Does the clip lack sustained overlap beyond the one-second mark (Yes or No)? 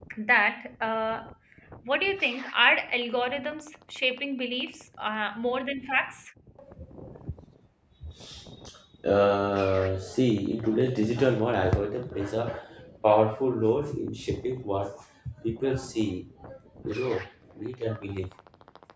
Yes